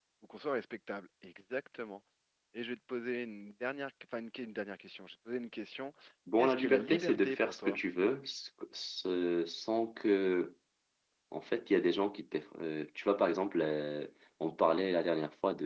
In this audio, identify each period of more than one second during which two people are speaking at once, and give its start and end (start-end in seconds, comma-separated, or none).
6.4-7.8